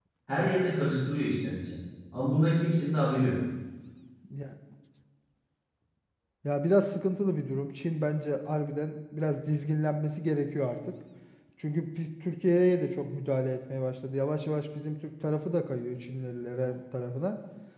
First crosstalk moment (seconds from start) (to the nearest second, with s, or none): none